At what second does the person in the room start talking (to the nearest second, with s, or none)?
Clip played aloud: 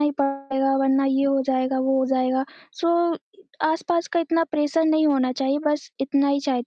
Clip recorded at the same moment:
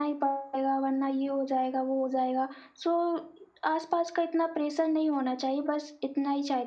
none